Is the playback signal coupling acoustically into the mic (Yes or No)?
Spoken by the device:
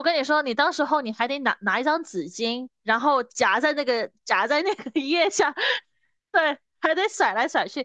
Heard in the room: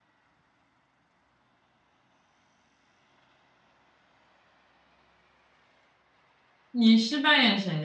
No